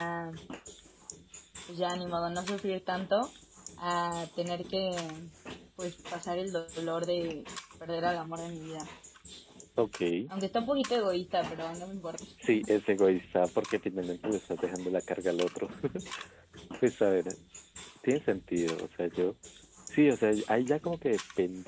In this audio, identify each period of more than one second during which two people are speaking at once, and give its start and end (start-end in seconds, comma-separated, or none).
none